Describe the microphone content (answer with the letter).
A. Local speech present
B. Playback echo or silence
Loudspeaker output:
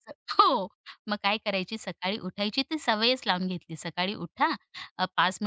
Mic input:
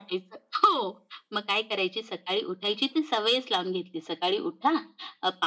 B